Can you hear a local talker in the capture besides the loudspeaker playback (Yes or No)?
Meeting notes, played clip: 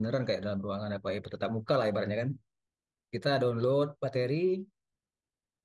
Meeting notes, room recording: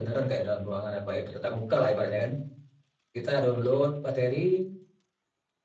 No